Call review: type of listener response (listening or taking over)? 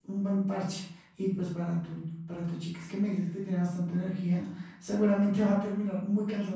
listening